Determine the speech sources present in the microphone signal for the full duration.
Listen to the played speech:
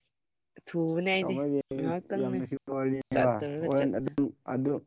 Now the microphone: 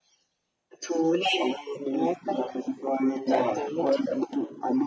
echo only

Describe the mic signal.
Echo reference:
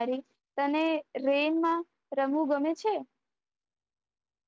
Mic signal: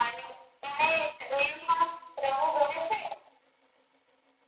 echo only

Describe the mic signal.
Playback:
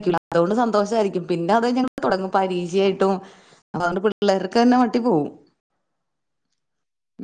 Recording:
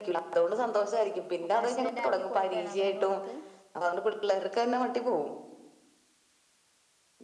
both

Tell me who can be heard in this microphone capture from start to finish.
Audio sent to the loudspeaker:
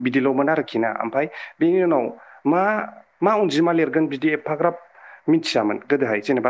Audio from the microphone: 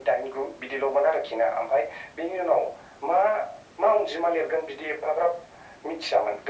echo only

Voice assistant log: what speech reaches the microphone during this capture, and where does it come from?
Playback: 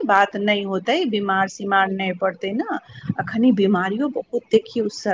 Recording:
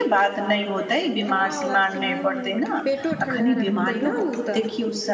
both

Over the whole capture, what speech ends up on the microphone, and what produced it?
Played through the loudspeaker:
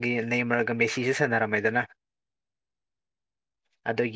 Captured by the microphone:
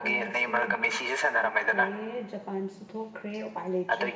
both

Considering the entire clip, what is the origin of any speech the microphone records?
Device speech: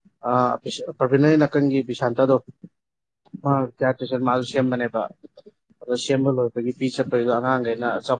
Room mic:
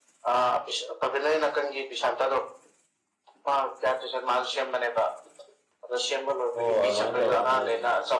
both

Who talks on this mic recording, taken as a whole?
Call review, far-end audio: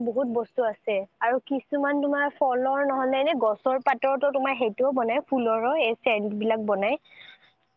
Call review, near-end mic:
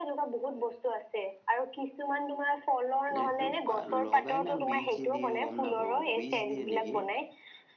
both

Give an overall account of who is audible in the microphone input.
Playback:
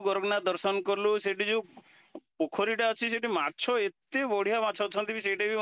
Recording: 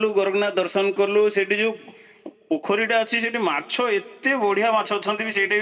echo only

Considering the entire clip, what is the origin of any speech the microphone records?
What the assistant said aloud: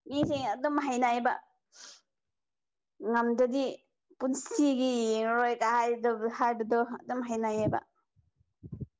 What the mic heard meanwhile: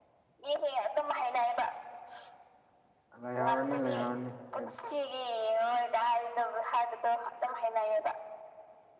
both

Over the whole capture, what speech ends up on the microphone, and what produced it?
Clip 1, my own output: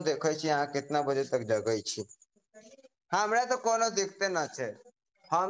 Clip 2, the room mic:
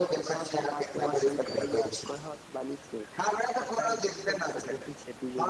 both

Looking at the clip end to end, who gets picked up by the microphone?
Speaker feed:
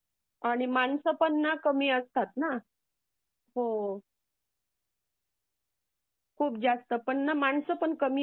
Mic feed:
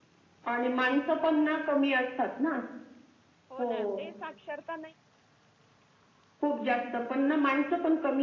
both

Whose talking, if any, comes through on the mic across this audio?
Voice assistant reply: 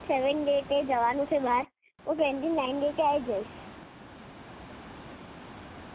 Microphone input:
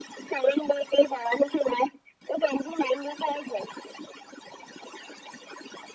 echo only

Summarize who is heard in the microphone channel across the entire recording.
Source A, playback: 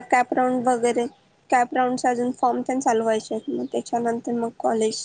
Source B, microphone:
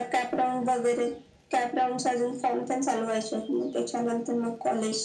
echo only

